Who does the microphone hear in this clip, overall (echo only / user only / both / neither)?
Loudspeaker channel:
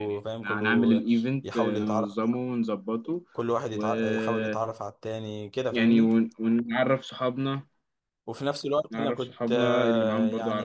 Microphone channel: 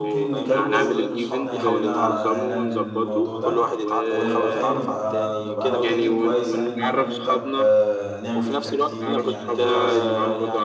both